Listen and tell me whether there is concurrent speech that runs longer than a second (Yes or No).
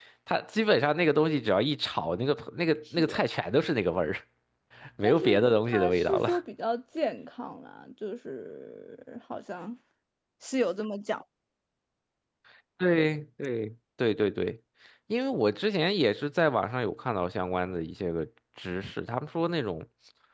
Yes